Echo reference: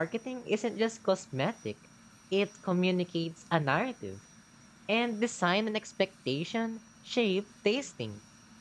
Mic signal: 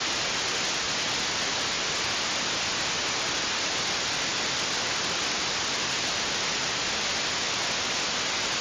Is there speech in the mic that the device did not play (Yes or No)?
No